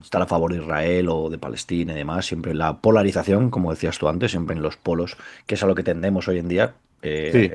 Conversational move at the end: listening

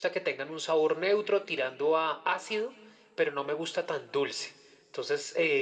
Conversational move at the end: listening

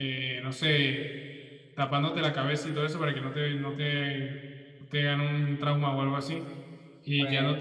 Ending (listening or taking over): listening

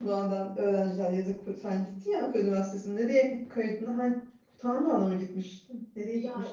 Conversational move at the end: taking over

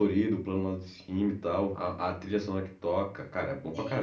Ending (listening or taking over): taking over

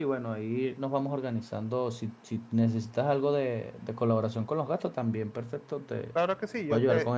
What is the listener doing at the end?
taking over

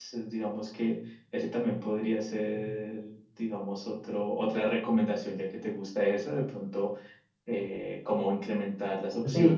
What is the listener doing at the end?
taking over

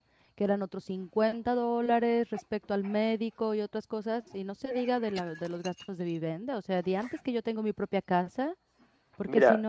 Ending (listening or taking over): listening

